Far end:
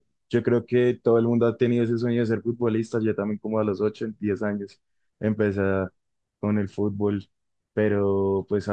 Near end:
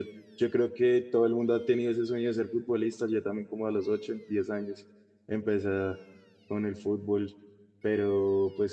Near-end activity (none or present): none